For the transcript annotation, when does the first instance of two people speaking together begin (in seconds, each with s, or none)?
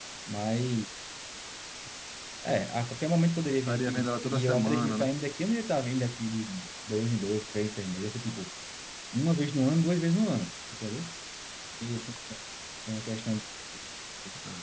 3.7 s